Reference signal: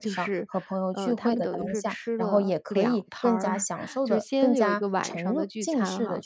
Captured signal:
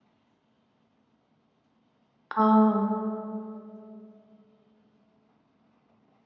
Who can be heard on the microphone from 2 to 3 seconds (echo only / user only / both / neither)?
user only